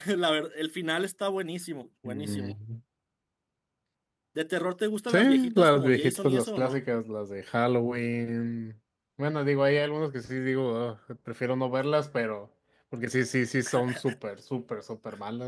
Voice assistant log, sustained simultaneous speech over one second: present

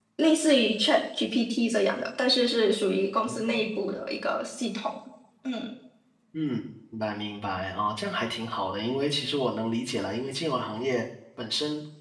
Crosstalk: none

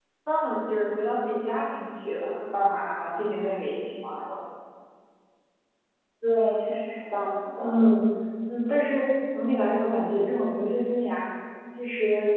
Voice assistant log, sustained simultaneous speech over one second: none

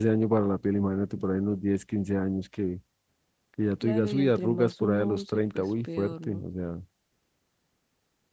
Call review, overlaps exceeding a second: present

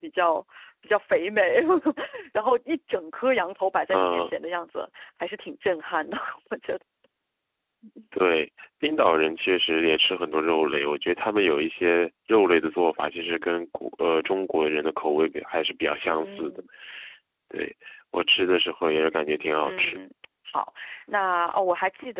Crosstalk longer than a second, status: none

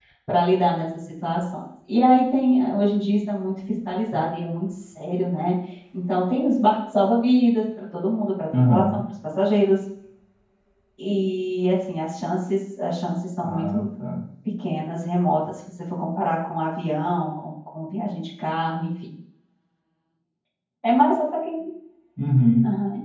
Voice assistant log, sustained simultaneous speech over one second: none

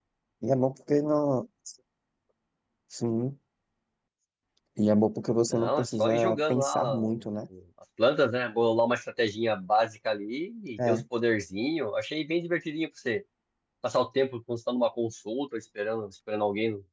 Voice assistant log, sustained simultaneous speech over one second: present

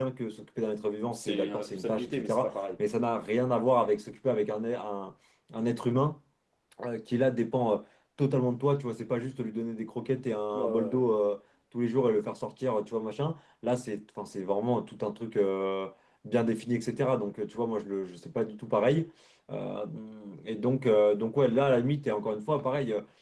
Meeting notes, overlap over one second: present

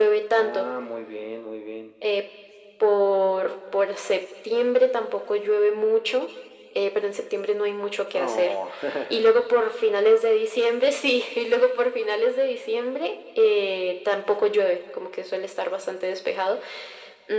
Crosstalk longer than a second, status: none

